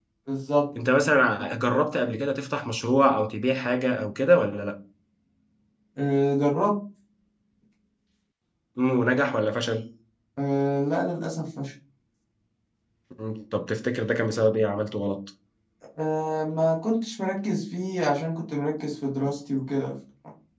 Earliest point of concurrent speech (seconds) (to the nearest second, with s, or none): none